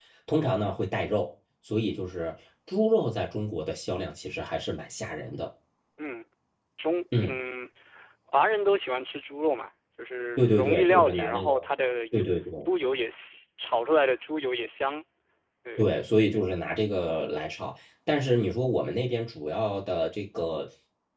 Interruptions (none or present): present